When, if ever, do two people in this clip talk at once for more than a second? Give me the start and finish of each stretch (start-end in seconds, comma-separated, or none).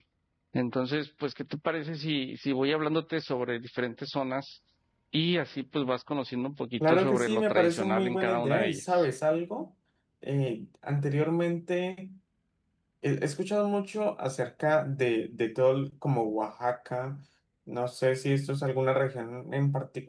6.9-9.1